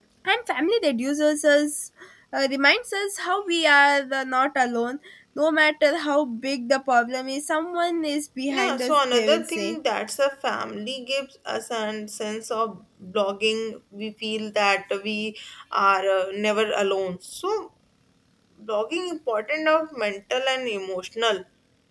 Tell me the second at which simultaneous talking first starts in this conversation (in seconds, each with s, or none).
8.5 s